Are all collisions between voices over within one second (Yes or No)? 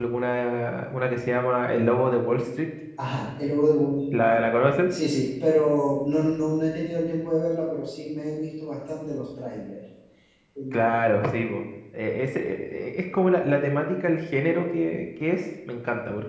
Yes